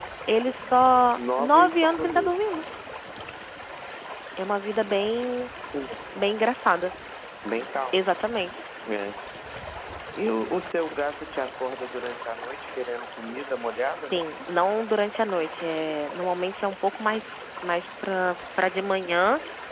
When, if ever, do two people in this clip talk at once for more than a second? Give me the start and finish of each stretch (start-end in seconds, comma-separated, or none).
1.2-2.4